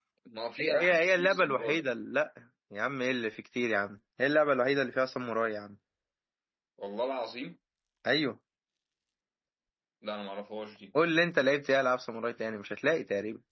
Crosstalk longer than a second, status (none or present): present